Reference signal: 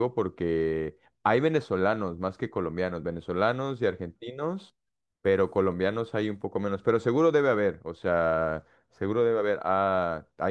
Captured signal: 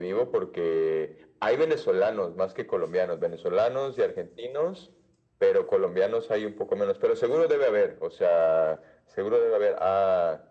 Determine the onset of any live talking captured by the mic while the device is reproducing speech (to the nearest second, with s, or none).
none